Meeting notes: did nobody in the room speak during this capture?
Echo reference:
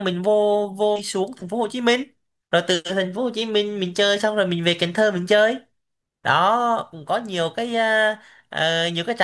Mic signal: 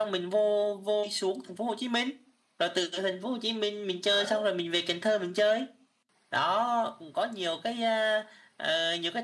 No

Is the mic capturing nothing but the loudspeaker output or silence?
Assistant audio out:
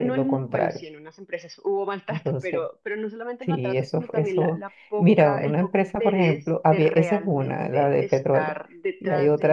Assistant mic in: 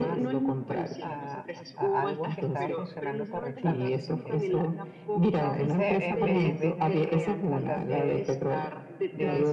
No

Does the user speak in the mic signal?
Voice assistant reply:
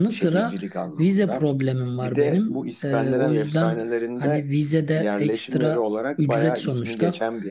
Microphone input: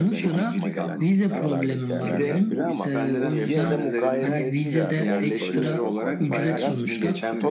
Yes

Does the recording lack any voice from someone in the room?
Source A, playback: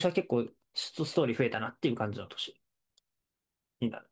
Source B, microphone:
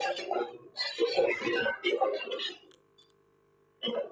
Yes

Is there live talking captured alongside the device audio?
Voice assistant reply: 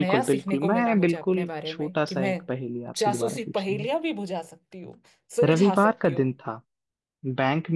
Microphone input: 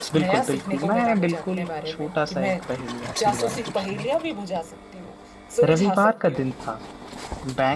No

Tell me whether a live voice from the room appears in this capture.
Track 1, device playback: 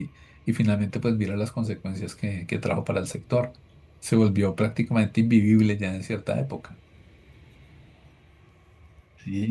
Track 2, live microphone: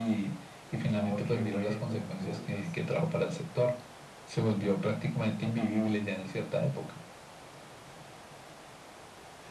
Yes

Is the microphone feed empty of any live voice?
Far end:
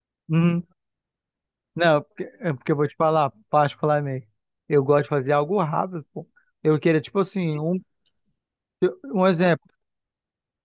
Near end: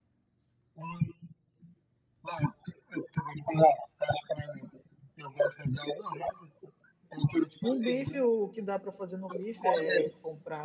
No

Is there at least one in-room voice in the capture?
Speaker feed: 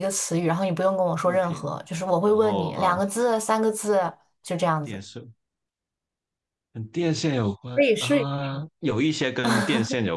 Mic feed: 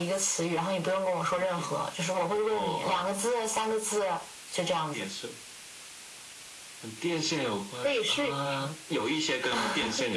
No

